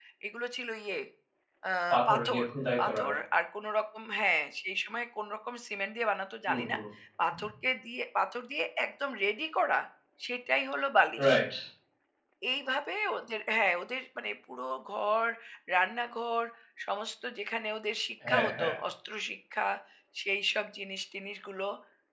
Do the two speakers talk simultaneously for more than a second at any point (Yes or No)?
No